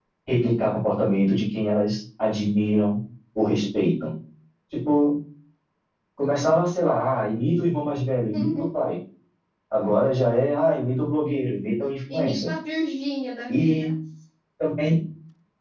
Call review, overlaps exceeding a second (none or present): none